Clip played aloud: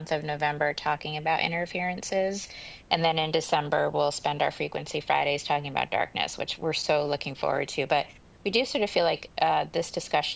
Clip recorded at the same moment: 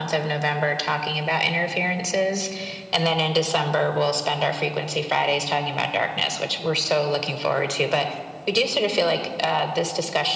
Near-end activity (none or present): none